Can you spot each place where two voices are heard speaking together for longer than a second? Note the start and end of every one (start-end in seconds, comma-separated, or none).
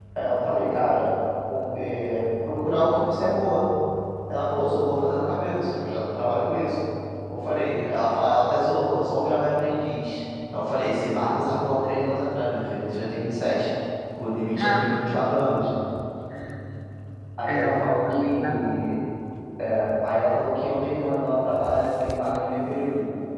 17.5-19.0